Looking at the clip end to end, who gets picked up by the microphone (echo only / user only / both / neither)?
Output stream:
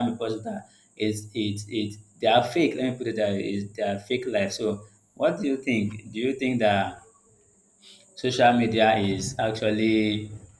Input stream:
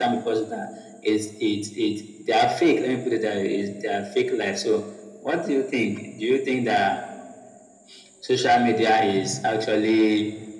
echo only